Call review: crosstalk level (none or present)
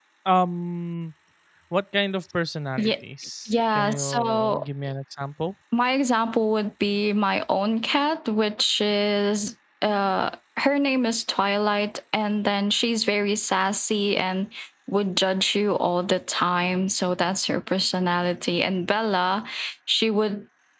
present